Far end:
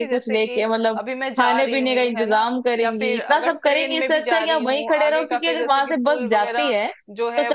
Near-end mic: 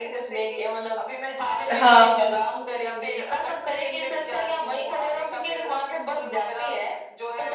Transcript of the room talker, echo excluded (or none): हाँ हाँ,